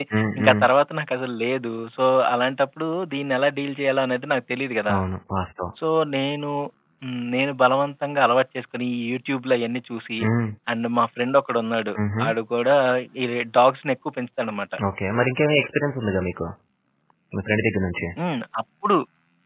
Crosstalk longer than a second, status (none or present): none